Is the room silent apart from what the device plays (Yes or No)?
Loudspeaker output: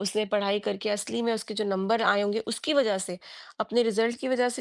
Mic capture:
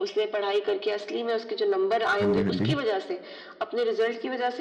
No